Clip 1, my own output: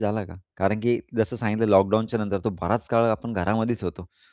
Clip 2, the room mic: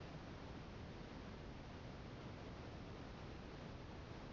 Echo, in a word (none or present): none